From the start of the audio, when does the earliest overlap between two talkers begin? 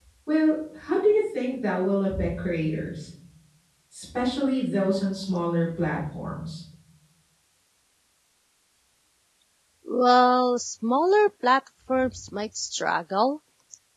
none

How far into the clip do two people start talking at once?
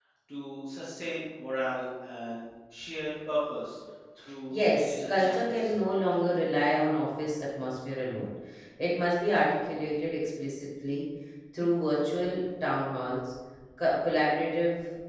4.5 s

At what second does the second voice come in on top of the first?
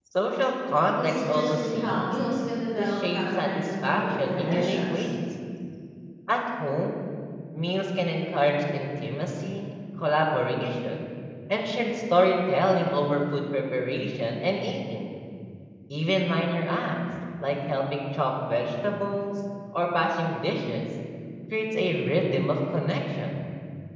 0.9 s

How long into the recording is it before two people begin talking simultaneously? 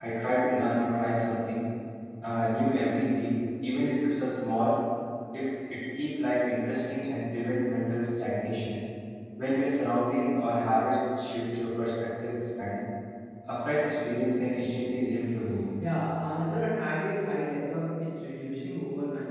none

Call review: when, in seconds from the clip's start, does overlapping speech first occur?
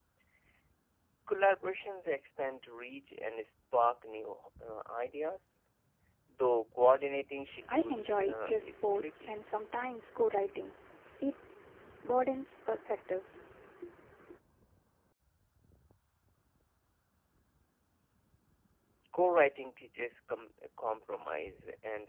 7.6 s

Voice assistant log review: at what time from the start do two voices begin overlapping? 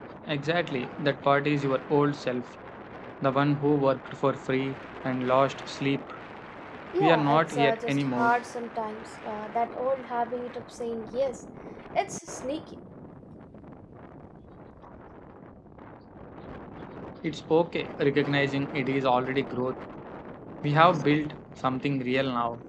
7.0 s

